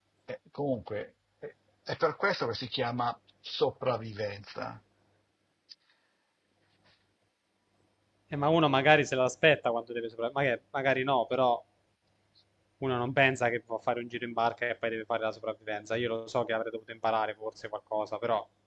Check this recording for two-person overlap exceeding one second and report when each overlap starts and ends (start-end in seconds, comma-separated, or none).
none